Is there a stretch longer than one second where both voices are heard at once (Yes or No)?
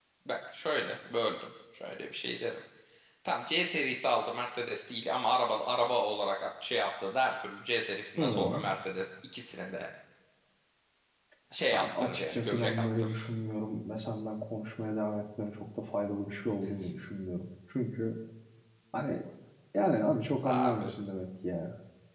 Yes